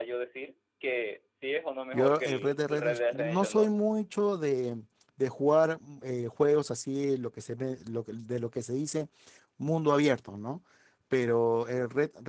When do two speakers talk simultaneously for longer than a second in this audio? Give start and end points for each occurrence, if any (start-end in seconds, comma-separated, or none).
1.9-3.7